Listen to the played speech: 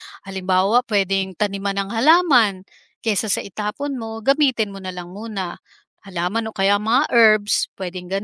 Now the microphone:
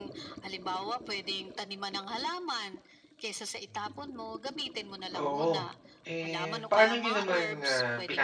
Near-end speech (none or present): present